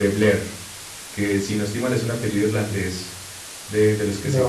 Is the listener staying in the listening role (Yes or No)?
Yes